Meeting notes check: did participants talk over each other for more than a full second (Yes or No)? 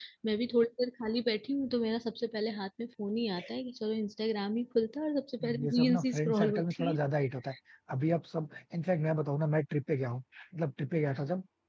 Yes